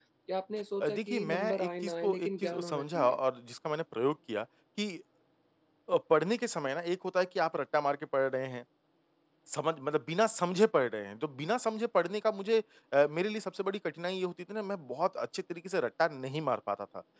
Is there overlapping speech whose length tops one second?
Yes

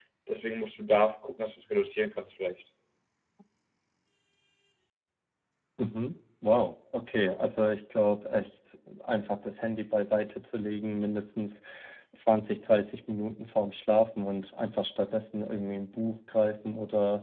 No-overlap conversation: Yes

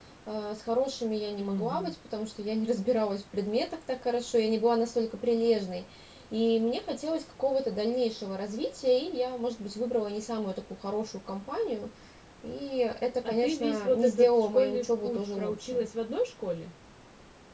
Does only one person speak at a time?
No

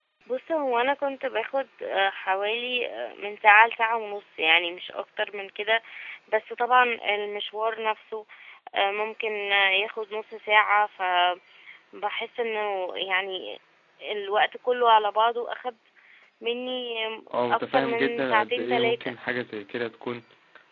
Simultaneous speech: Yes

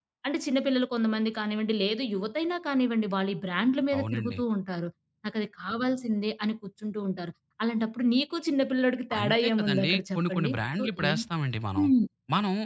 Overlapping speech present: Yes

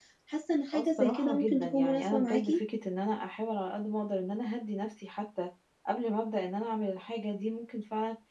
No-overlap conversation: No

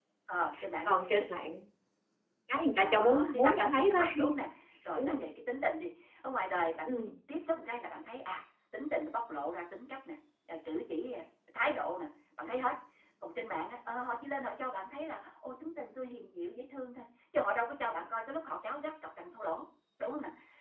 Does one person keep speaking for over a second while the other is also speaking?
Yes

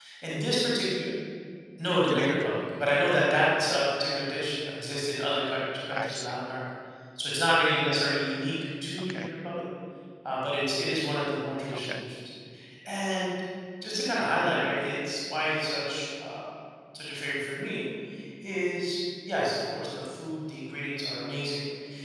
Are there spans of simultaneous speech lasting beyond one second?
No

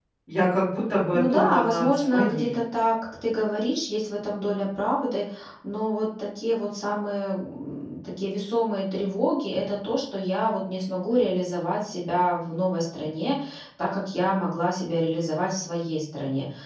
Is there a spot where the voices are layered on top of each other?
Yes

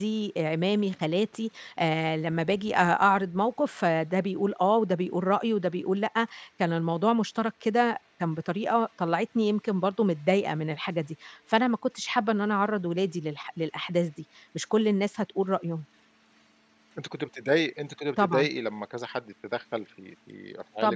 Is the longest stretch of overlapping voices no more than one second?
Yes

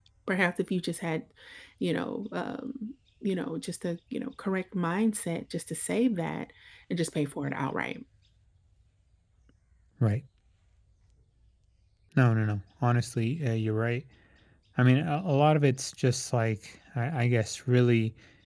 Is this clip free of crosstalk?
Yes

